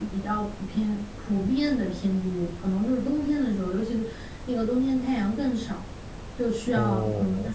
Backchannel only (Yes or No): Yes